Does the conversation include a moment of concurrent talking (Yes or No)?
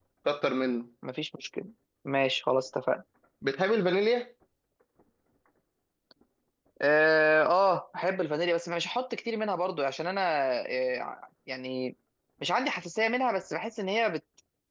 No